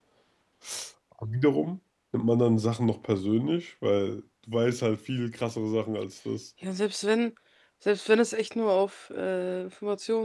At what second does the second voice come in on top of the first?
none

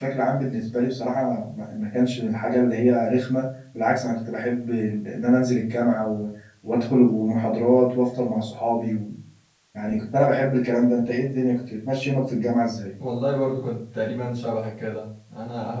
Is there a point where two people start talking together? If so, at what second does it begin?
none

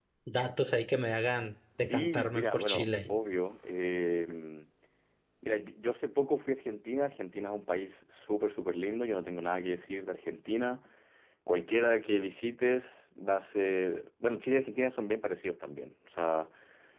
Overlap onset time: 2 s

